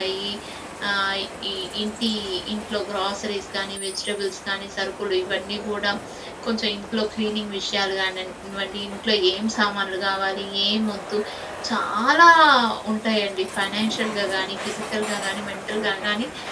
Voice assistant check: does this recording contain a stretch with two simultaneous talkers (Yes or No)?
No